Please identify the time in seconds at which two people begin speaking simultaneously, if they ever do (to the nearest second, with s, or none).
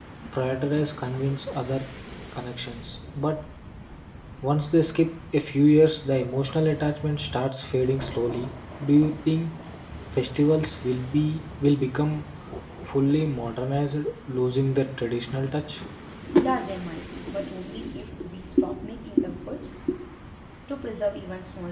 none